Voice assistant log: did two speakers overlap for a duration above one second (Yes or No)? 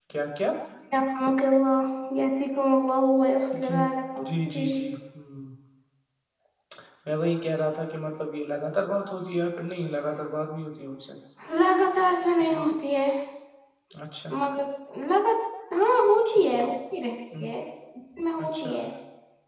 No